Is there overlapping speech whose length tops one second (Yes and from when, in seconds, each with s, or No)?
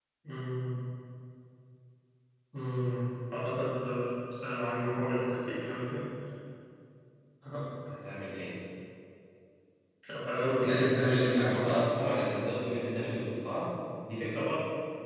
Yes, from 10.6 s